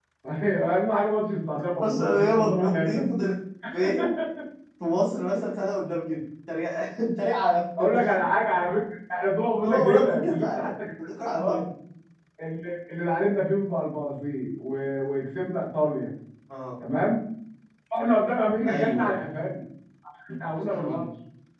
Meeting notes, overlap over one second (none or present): present